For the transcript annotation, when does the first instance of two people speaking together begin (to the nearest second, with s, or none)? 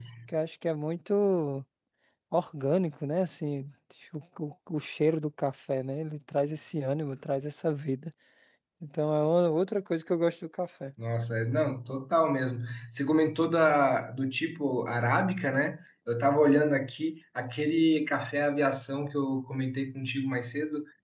none